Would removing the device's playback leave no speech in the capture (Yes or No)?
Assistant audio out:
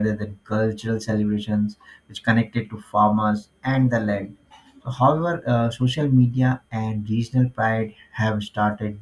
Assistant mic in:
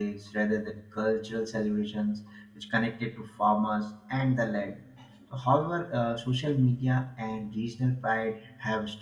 Yes